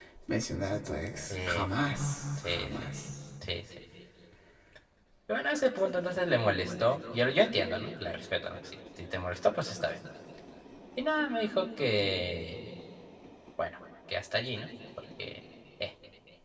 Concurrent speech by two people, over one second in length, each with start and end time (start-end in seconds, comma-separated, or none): none